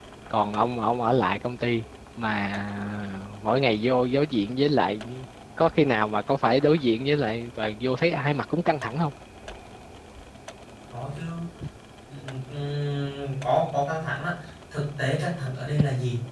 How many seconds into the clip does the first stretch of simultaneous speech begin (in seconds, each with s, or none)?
none